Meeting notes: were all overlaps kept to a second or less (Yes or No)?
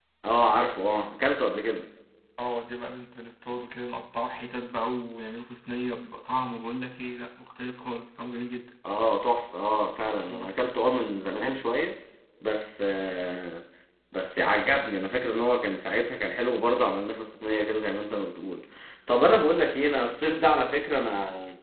Yes